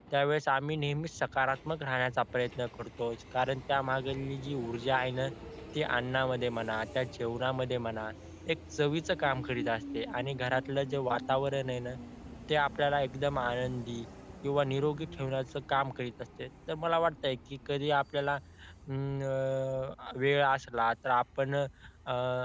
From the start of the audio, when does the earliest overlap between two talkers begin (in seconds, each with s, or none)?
none